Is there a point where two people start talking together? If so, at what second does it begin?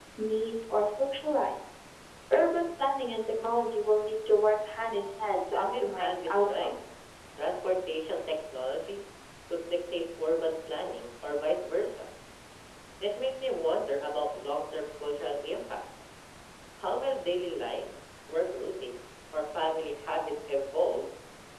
6 s

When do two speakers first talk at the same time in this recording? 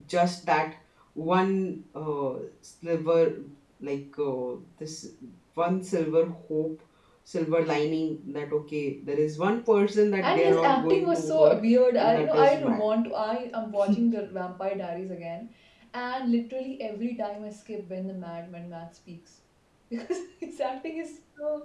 10 s

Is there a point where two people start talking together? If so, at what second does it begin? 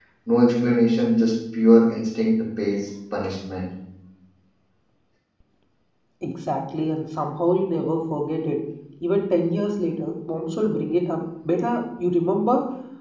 none

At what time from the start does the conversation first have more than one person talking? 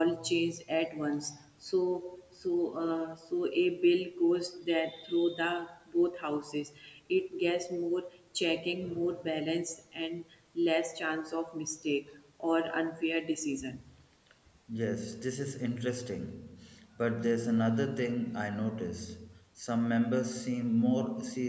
none

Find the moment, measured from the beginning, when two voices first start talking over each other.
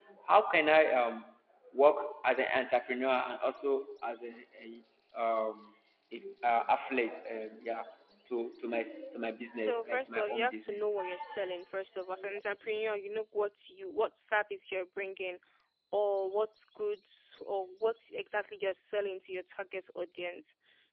10 s

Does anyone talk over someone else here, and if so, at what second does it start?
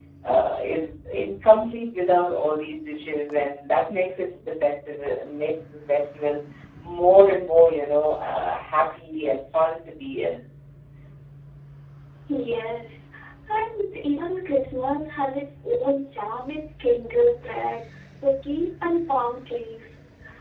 none

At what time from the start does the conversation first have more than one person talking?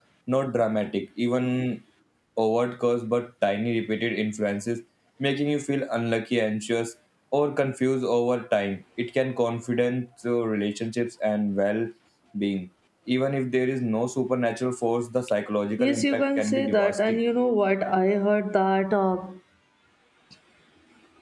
16 s

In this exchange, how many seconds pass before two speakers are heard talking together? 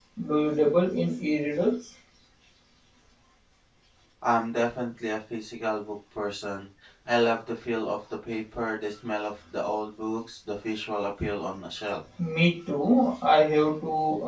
none

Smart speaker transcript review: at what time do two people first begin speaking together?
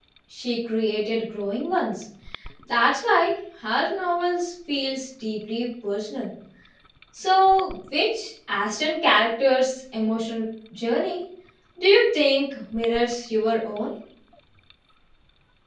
none

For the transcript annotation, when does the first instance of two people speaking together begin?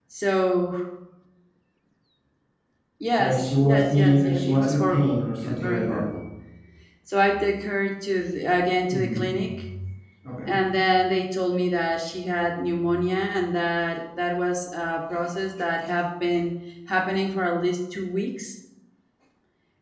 3 s

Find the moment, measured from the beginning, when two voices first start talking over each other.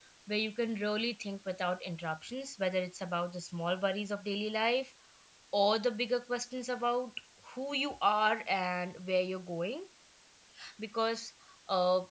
none

